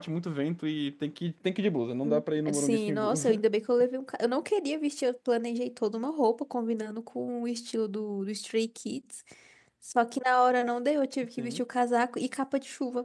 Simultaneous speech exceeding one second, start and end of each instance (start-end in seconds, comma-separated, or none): 2.0-3.4